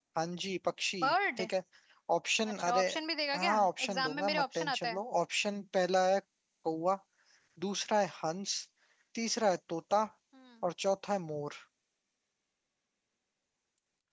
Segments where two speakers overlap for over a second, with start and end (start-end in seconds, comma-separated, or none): 3.4-5.0